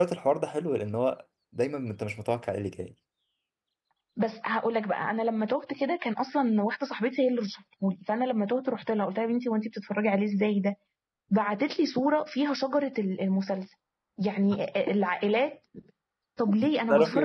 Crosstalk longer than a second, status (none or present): none